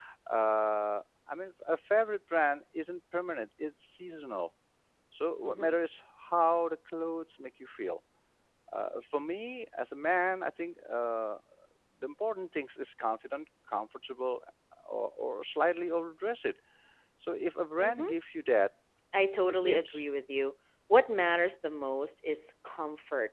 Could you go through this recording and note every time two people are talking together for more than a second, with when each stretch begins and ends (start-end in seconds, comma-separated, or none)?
none